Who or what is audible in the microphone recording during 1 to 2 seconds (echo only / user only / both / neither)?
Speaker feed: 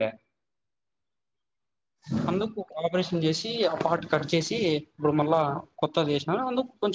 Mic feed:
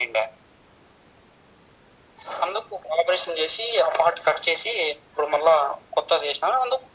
neither